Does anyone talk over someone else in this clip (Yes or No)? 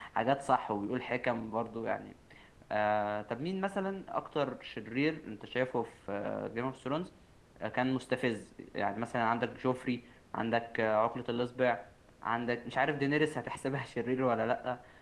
No